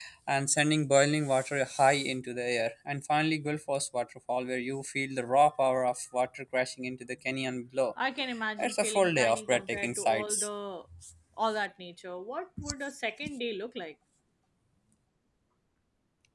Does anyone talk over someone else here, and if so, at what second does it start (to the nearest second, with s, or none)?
9 s